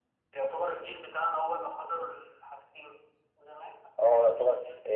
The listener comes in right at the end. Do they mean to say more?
Yes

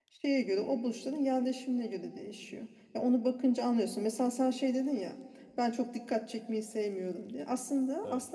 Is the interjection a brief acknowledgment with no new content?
Yes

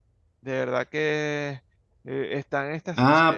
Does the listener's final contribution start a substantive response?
Yes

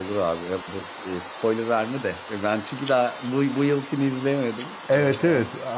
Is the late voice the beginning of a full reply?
Yes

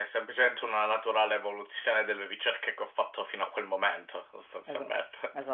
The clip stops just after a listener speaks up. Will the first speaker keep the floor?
No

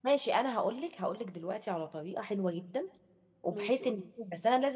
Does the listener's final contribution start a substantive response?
No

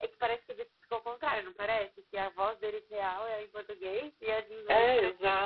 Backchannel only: No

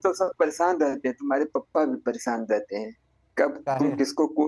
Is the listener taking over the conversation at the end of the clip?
No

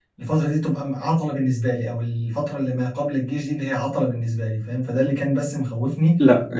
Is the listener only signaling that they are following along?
No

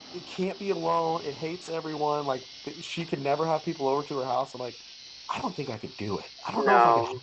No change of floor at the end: Yes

